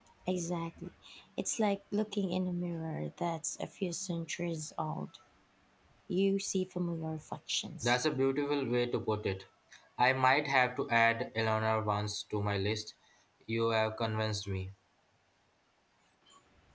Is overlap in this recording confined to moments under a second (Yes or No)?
Yes